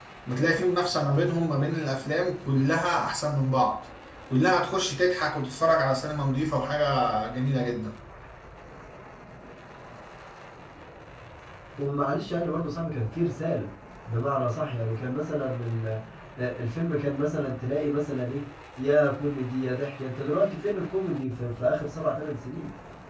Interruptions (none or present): none